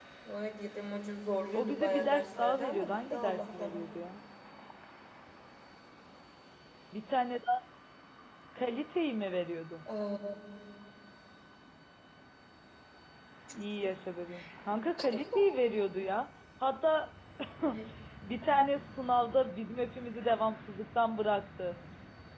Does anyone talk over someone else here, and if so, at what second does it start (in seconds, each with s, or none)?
1.5 s